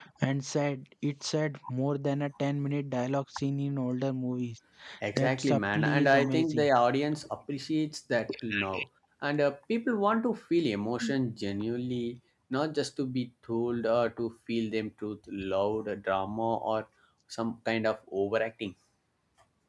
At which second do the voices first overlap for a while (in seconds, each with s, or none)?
5.2 s